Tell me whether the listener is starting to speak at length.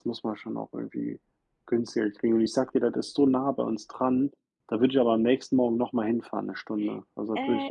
Yes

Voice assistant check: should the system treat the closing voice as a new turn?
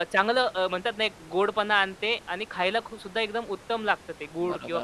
Yes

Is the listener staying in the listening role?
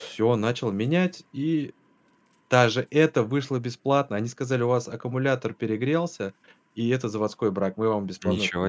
No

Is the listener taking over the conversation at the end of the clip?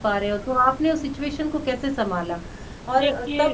No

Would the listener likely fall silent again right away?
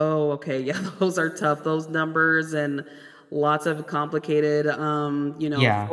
Yes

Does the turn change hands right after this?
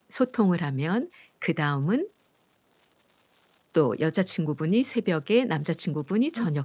No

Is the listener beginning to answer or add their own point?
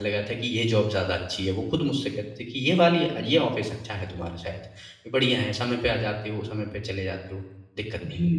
Yes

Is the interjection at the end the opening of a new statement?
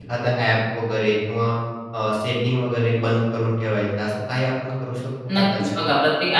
Yes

